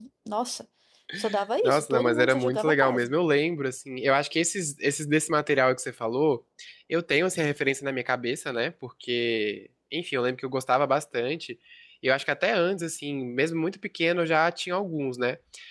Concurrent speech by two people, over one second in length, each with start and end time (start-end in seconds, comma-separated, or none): 1.6-3.1